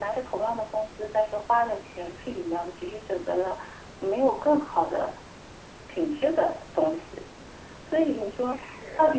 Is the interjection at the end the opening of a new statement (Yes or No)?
No